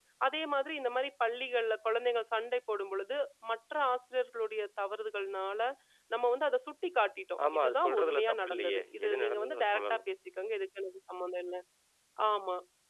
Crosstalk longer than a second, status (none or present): present